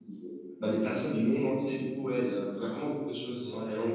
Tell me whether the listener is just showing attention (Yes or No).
No